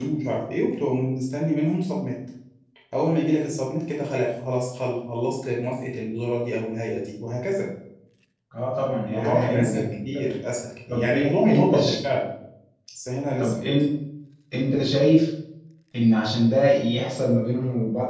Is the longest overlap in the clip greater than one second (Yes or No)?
Yes